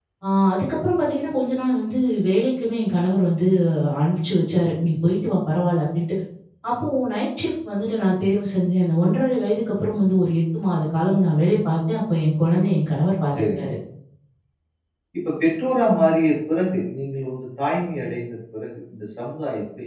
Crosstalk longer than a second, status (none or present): none